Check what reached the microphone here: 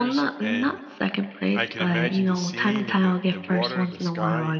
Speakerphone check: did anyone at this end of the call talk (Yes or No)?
Yes